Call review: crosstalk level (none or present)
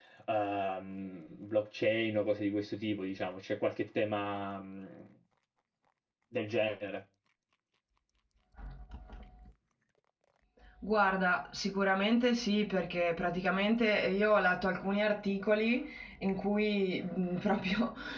none